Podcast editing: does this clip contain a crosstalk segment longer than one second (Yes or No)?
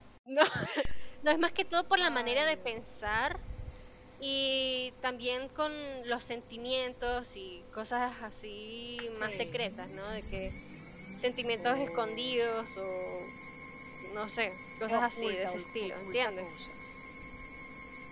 Yes